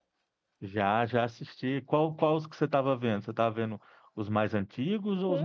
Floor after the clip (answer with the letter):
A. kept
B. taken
B